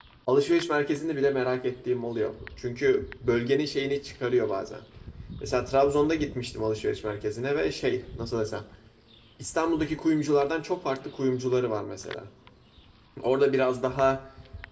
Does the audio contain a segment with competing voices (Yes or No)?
No